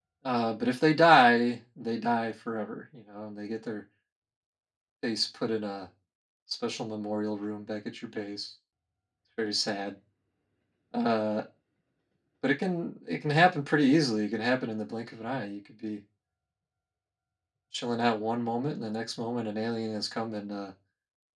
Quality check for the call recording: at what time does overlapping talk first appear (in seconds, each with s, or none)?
none